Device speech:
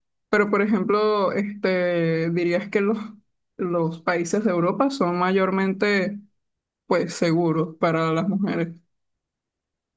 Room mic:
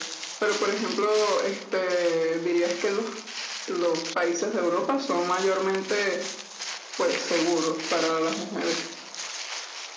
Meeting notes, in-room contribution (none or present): none